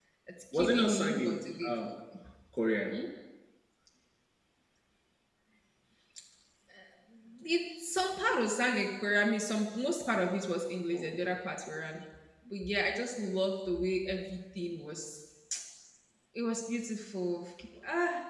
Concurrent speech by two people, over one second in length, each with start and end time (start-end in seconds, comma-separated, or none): 0.5-1.9